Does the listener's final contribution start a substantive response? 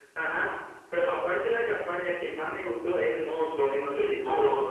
Yes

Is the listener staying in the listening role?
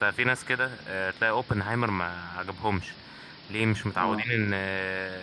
Yes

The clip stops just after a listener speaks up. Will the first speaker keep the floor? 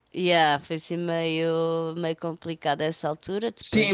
No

